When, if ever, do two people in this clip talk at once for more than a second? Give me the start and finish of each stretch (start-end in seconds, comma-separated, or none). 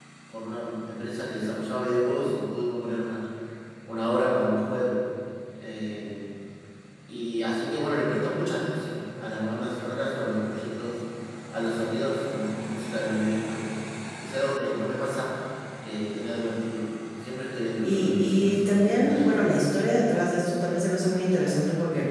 17.8-19.3